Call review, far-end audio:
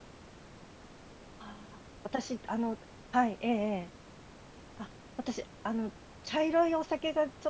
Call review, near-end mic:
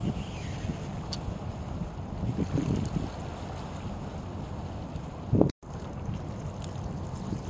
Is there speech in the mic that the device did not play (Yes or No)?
No